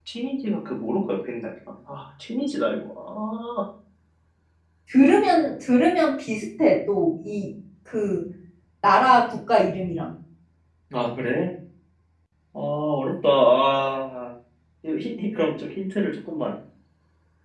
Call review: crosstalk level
none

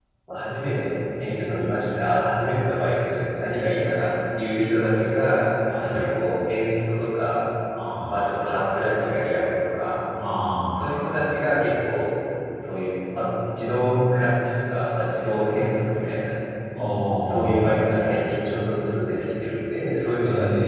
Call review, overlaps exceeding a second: none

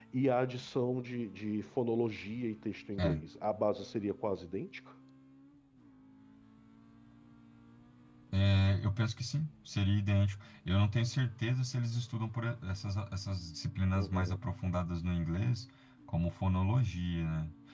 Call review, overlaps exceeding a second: none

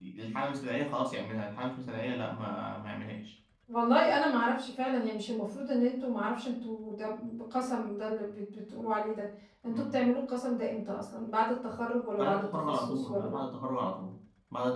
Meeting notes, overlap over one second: present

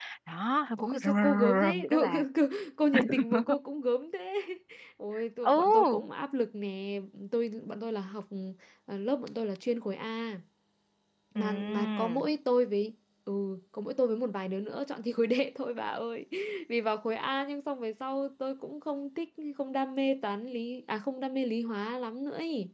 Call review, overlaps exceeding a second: present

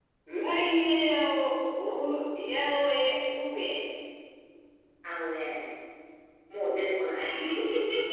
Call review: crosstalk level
none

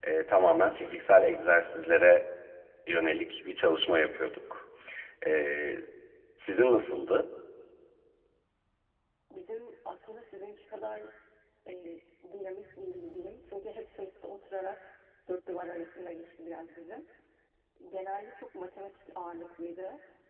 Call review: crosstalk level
none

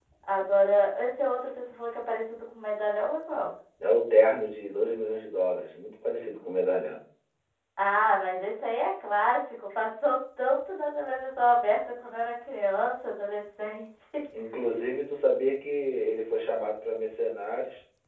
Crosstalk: none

